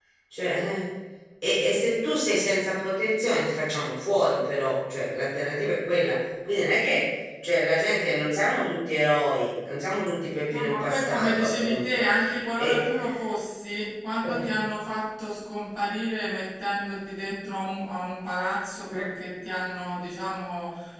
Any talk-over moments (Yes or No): Yes